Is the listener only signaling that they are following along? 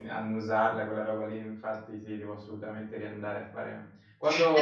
Yes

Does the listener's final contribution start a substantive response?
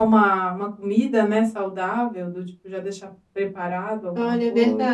Yes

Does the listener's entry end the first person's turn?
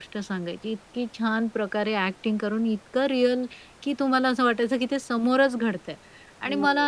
No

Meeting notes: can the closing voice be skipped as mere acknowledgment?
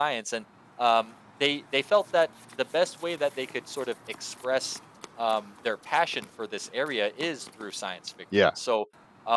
Yes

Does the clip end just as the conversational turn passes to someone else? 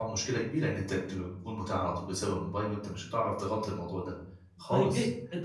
Yes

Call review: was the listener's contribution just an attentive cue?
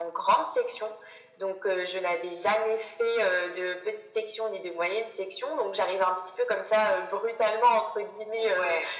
Yes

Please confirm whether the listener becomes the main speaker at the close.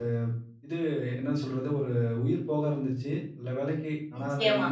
No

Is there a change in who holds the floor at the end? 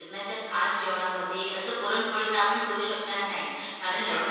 No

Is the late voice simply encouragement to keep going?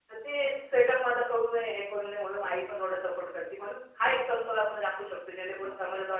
No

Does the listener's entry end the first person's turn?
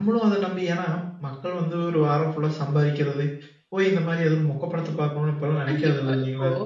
Yes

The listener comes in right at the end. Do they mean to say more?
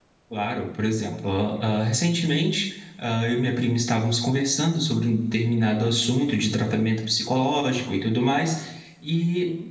No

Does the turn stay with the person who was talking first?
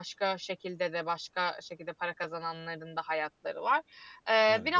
Yes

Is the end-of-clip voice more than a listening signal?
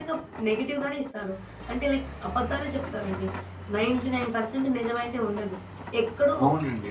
Yes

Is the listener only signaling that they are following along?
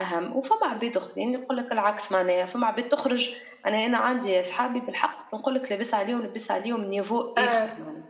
Yes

